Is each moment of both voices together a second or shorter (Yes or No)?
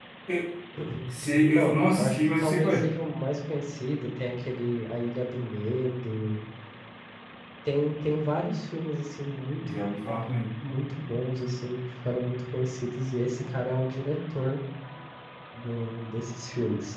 No